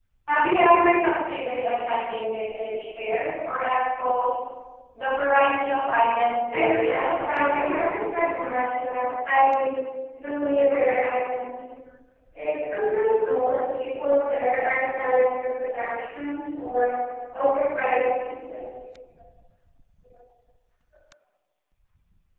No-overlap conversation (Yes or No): No